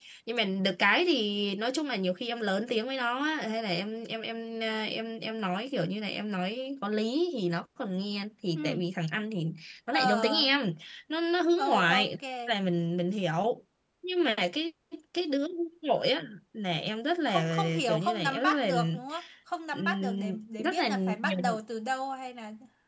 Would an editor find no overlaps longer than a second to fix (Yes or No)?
No